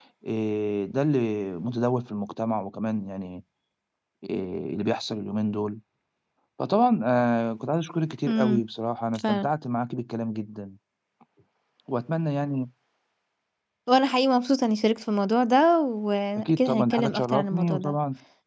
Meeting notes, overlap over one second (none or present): present